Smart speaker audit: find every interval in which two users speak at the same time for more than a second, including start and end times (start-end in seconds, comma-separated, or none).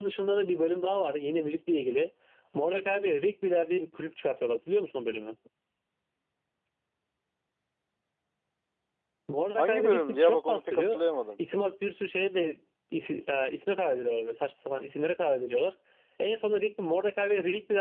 9.6-11.0